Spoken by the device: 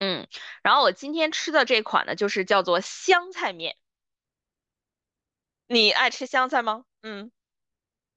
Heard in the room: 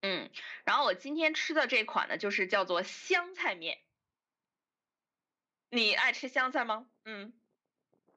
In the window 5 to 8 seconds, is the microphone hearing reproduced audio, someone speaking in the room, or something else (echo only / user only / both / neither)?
echo only